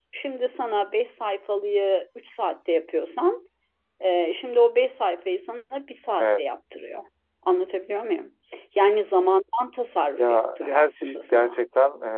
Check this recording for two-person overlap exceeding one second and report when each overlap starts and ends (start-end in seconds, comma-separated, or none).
10.2-11.6